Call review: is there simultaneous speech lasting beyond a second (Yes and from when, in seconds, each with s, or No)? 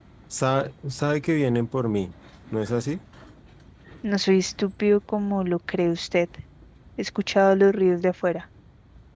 No